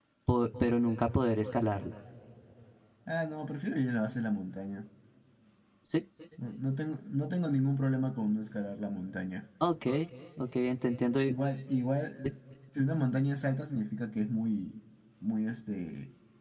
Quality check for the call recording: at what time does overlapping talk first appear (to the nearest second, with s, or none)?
none